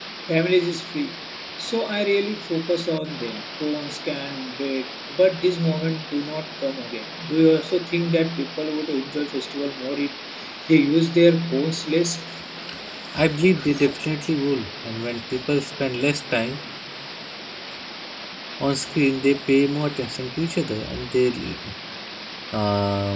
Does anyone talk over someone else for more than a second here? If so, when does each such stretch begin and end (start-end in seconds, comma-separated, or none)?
none